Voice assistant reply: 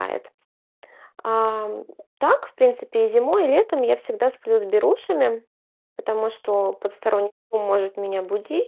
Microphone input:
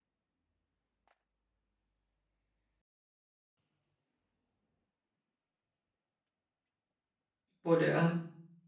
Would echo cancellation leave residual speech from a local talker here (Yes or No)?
Yes